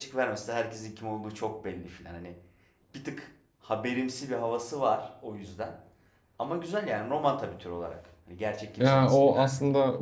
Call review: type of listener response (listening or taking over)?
taking over